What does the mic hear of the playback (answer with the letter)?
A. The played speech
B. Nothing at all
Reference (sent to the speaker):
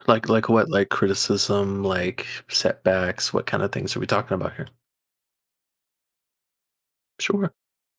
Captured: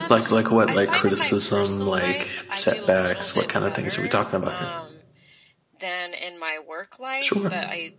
A